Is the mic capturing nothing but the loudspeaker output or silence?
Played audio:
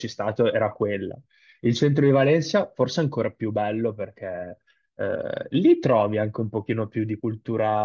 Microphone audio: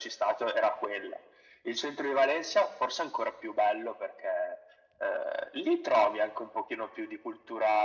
Yes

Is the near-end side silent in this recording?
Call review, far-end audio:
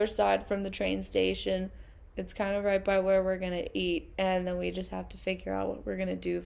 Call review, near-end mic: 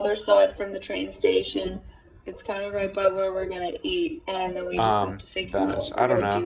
No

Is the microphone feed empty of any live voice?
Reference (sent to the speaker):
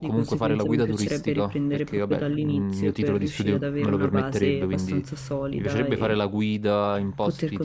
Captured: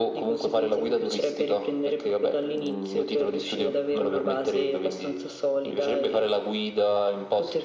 Yes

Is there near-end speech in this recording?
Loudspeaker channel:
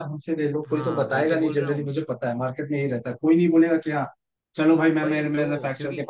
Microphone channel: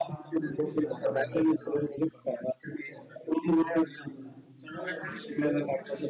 Yes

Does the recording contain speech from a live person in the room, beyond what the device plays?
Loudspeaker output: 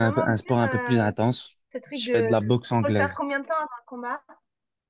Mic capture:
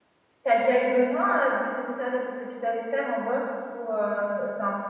Yes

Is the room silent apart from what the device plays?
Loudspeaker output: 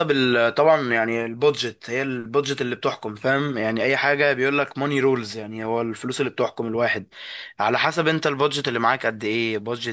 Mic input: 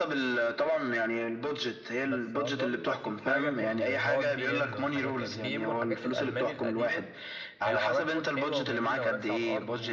No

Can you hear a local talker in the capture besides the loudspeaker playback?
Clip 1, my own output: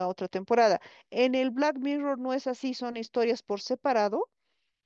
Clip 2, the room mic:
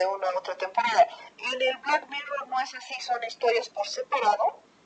No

